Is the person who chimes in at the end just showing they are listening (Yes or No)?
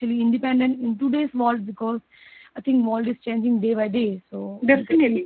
No